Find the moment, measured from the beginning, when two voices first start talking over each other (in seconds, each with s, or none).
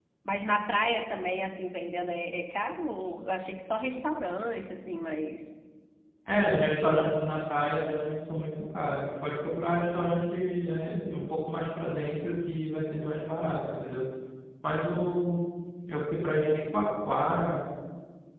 none